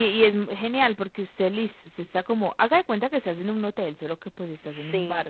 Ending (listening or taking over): listening